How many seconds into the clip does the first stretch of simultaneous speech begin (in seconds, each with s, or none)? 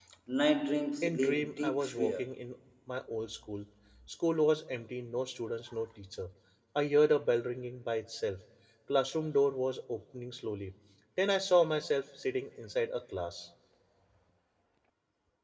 1.0 s